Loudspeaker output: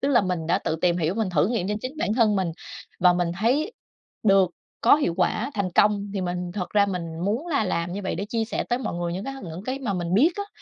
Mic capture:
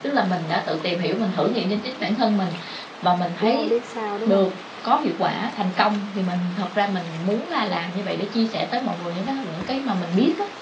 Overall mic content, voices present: both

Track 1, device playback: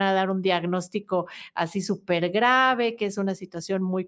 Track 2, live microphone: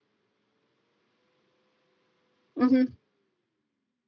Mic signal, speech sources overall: user only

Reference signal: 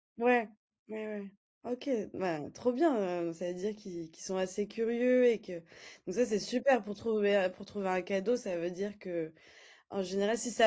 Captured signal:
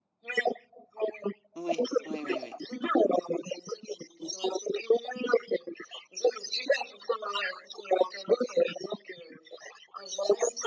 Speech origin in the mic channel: both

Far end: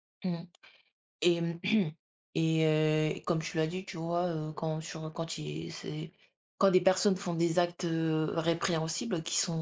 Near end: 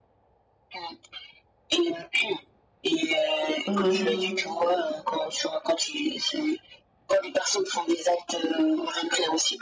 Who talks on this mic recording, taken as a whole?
both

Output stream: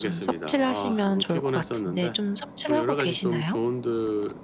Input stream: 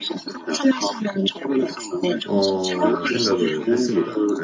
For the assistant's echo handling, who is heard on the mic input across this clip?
both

